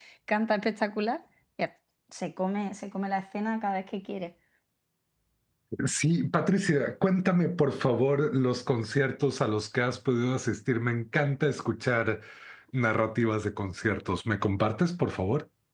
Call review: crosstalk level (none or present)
none